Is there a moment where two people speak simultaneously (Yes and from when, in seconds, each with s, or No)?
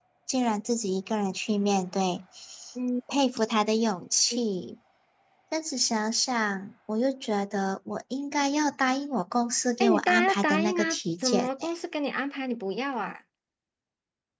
Yes, from 9.8 s